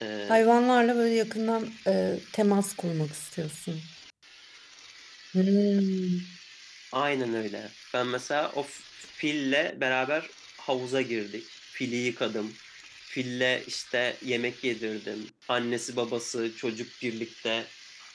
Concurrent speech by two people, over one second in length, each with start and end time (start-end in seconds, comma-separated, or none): none